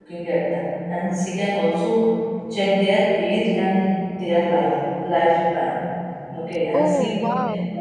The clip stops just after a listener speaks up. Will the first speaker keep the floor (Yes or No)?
Yes